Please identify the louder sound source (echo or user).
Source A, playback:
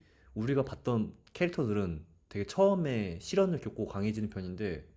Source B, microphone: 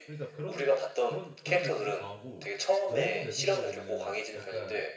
echo